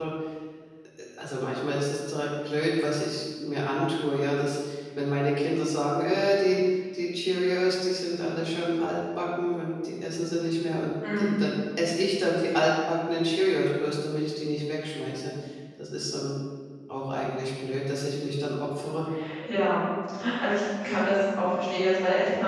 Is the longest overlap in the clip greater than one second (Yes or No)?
No